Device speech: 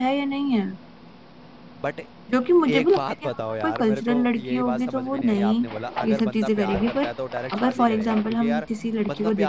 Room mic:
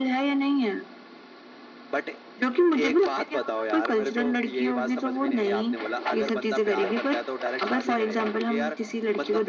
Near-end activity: none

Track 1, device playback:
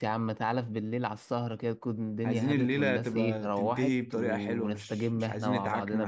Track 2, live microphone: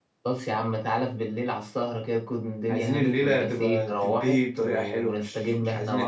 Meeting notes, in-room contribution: none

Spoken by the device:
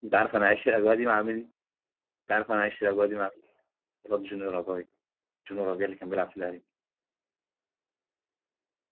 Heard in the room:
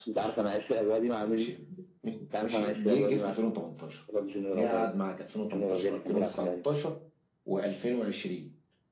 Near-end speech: present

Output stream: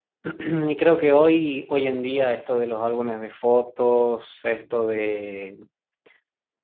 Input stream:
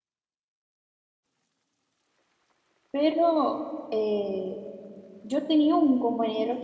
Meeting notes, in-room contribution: present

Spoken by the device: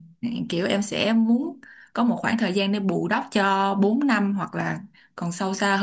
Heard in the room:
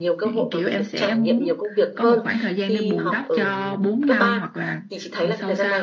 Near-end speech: present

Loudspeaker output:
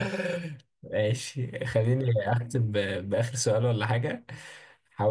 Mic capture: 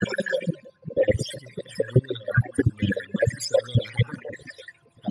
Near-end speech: none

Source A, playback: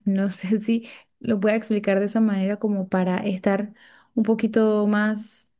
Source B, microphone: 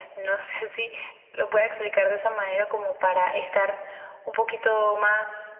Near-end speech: none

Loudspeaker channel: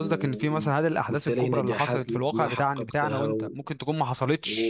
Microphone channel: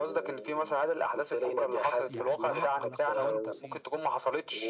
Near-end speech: present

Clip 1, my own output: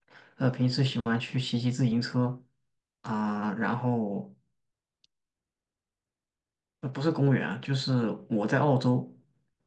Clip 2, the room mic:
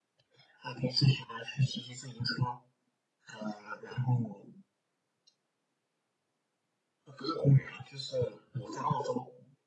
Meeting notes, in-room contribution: none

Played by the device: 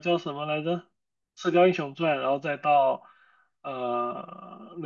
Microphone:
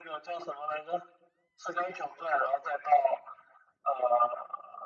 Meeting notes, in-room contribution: none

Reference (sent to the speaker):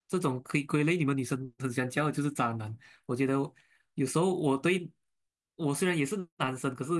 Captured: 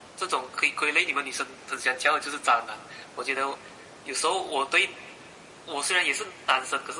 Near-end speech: none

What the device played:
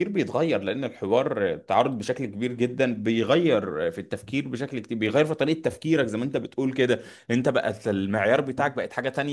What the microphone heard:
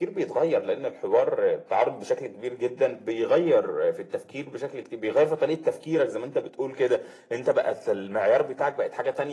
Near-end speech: none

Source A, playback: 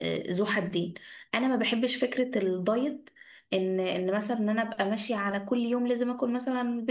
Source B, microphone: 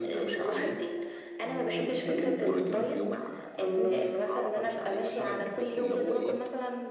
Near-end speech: present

